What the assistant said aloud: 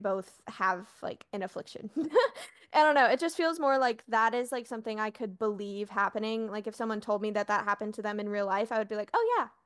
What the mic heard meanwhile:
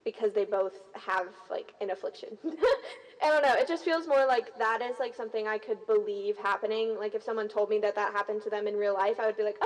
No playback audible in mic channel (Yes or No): No